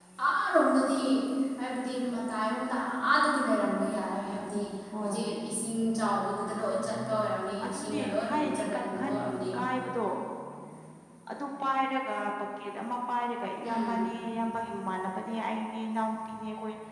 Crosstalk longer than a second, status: present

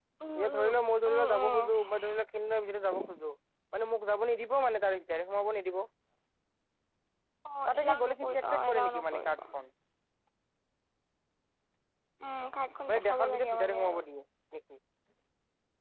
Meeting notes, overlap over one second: present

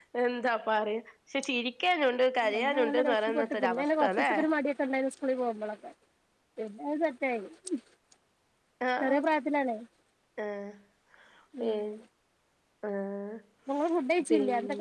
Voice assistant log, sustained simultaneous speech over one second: present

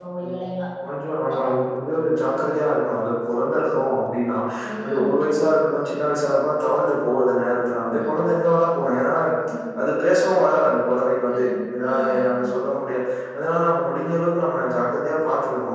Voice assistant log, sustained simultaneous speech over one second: present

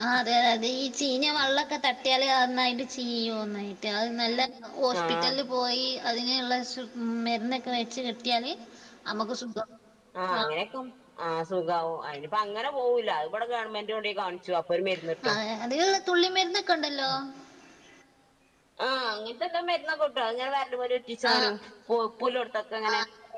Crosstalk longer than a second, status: none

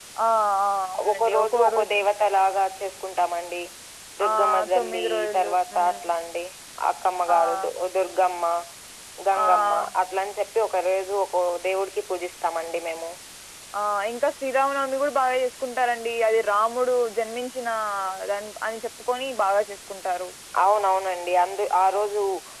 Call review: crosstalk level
present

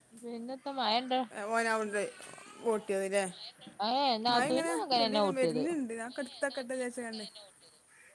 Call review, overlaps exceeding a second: present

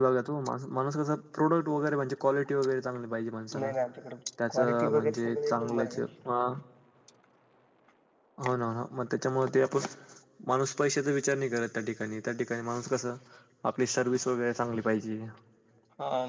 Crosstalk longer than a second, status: present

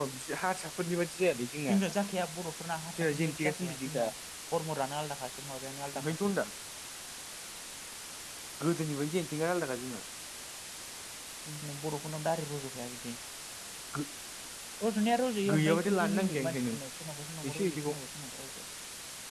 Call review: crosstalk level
present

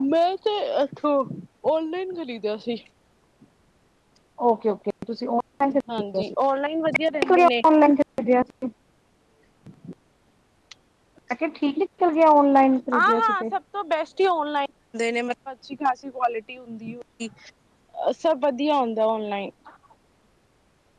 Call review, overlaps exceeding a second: none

